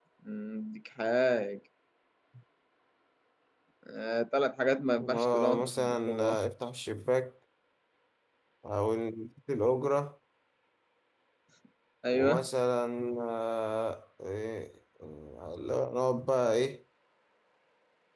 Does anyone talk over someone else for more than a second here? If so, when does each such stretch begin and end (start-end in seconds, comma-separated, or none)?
5.2-6.4